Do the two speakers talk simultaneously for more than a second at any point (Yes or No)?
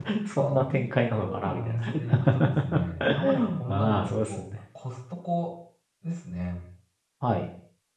Yes